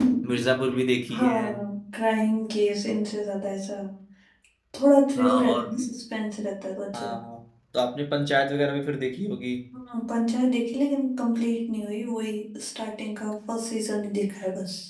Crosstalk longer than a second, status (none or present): none